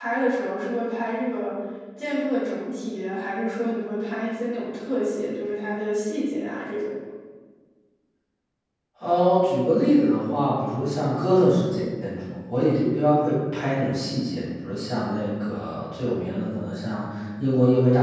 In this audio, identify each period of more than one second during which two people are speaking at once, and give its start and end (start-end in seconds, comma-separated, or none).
none